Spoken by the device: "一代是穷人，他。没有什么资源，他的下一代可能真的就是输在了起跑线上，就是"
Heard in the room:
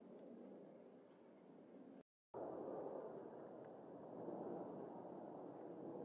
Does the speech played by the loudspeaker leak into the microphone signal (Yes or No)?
No